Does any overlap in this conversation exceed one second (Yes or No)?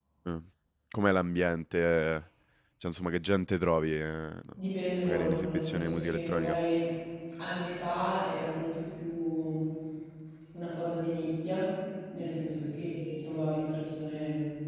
Yes